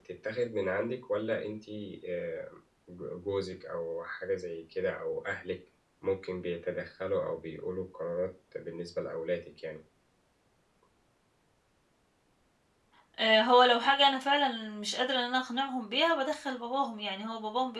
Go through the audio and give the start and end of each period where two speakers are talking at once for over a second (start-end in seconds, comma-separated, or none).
none